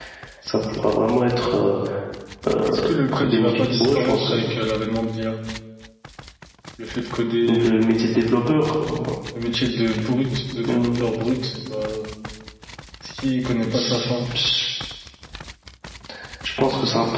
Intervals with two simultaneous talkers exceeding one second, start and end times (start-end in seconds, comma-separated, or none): 2.6-4.3